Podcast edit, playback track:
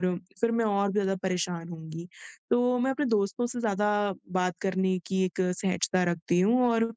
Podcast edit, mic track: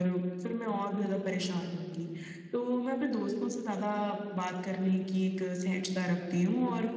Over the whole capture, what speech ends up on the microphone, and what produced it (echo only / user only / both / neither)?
echo only